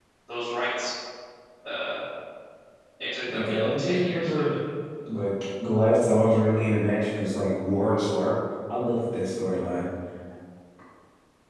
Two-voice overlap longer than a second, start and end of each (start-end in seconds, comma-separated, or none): 3.3-4.5